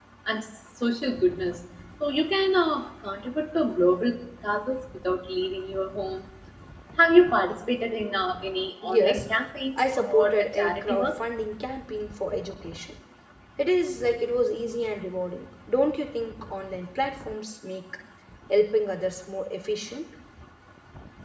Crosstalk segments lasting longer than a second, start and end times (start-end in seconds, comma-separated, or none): 9.8-11.1